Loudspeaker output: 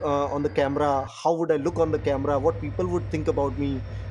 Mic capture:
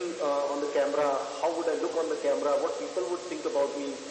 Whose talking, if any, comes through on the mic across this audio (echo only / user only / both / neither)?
echo only